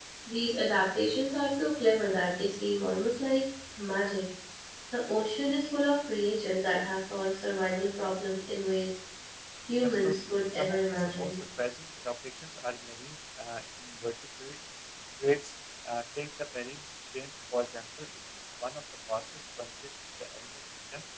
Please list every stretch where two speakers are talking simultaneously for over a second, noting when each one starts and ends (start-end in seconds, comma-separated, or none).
9.8-11.4